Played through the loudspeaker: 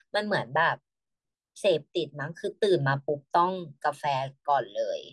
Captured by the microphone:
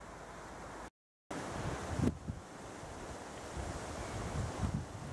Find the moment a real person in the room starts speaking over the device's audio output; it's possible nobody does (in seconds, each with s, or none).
none